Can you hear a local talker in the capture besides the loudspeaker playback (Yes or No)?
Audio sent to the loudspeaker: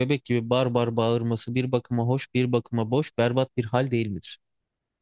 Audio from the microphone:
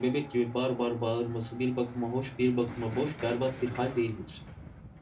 No